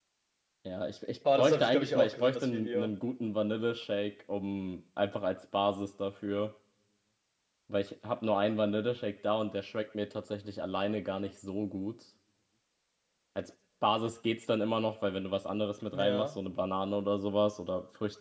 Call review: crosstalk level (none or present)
present